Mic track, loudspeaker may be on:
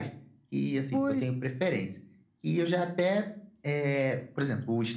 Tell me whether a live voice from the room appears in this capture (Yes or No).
Yes